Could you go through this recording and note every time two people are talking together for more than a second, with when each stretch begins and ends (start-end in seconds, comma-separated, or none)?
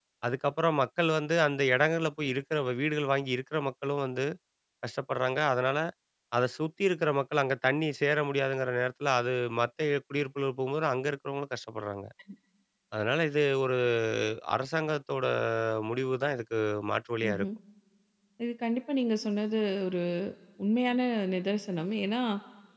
none